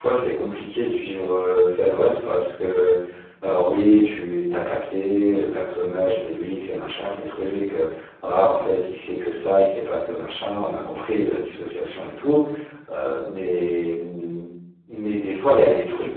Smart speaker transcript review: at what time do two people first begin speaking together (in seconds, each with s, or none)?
none